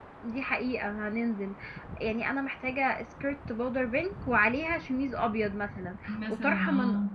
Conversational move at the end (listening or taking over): listening